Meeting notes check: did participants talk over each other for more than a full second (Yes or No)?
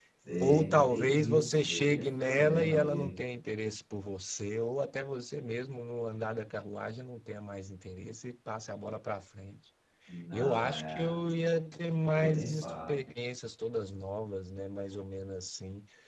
Yes